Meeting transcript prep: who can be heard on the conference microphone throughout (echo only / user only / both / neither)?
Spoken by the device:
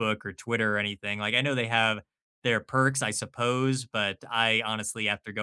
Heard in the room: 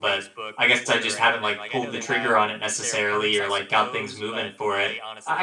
both